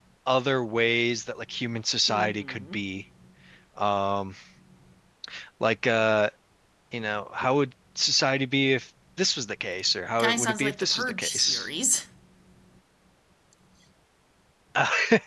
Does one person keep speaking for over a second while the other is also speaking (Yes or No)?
Yes